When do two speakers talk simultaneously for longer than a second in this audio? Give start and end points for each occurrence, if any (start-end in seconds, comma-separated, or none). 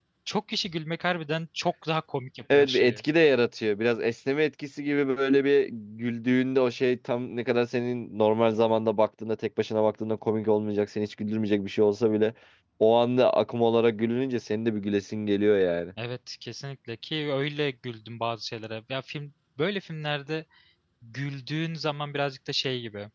none